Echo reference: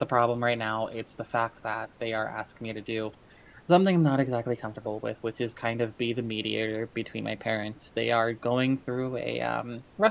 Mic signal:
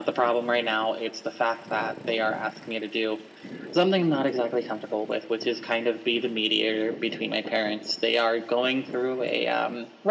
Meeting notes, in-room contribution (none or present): none